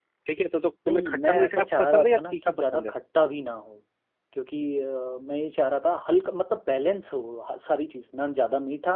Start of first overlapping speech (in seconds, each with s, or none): 0.9 s